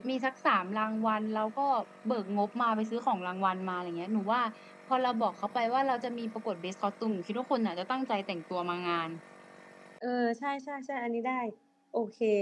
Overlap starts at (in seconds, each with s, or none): none